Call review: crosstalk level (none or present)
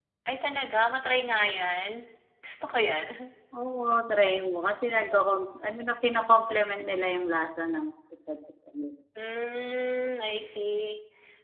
none